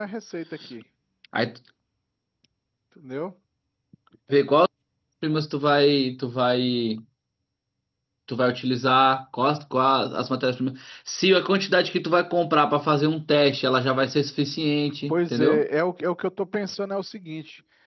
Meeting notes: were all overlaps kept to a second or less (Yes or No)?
Yes